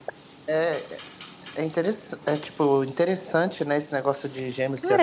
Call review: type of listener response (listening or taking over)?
taking over